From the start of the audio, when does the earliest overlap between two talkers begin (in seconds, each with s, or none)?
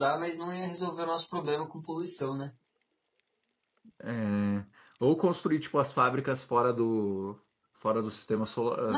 none